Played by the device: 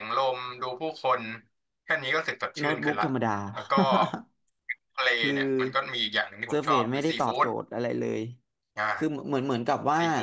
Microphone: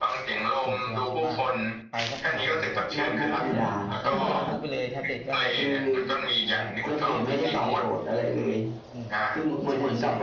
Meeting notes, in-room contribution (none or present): present